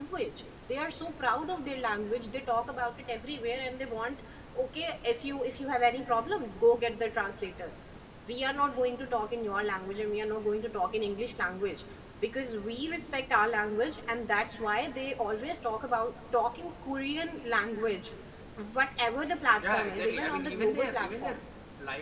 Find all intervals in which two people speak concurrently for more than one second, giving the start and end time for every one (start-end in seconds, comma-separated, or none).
19.6-21.4